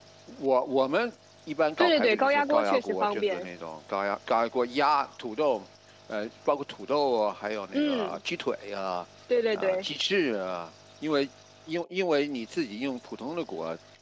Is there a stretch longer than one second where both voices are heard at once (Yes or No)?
Yes